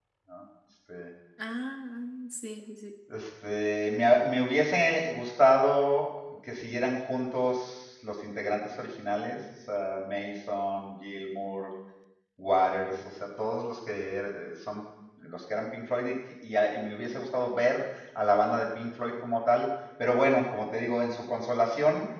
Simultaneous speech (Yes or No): No